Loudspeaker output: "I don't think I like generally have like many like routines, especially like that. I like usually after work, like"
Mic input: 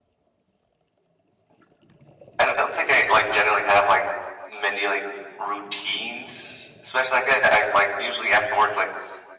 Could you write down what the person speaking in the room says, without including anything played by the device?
none

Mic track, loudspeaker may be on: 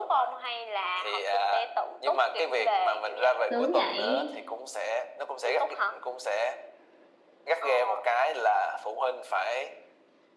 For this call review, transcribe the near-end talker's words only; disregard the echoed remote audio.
sướng vậy.

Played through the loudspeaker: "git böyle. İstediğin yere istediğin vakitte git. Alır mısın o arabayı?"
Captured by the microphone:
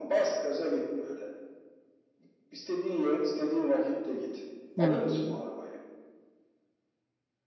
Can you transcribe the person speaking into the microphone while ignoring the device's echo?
hı hı.

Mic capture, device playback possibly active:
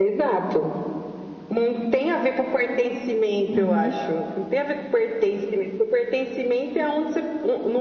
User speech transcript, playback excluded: Uhum.

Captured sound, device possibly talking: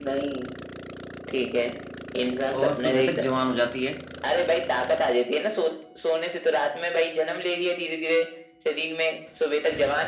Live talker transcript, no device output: और सुबह तक जवान हो जाती है

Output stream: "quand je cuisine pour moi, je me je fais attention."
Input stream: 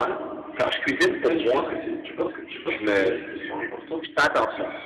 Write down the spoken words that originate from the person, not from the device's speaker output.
Après, tu penses que c'est, tu penses que, tu penses que ces risques sont importants?

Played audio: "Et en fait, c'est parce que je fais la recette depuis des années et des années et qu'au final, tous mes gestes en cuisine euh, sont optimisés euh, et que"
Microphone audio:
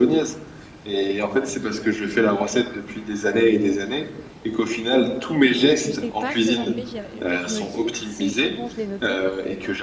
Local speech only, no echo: Je sais pas ce que j'en fais. J'ai- En fait, je me dis, si c'est bon, je l'ai noté,

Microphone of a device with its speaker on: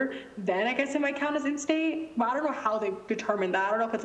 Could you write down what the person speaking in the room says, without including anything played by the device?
none

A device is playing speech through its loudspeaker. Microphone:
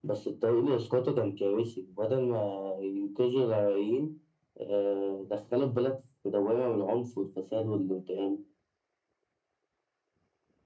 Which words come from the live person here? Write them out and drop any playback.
none

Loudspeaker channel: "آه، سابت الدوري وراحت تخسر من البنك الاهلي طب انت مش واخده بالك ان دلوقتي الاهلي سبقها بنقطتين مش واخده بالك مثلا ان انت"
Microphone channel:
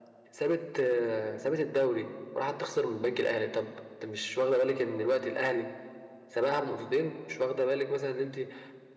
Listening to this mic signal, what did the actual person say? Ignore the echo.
none

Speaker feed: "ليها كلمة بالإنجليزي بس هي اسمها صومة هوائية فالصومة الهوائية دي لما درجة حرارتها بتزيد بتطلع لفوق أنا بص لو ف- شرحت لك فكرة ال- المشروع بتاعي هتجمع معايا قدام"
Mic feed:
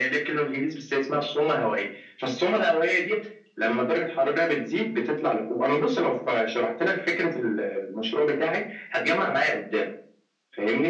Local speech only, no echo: none

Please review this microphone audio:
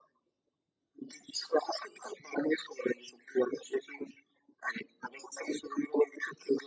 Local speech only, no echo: none

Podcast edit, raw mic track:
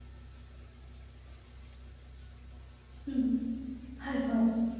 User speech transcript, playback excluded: うん。はいはい。

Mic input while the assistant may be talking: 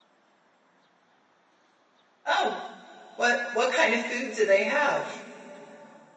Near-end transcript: Oh, what what kind of food do they have?

